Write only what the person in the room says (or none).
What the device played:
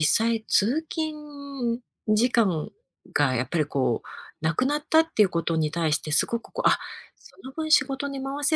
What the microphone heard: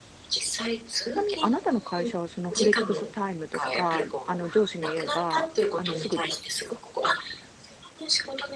ちなみにあなたの会社は、そのフレックスタイムとか、あの、上司に言えば、あの、すぐ